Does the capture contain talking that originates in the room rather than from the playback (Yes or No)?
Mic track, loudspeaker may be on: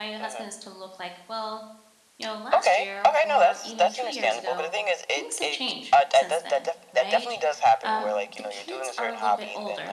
Yes